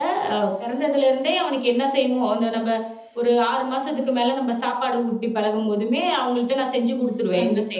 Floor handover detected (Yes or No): Yes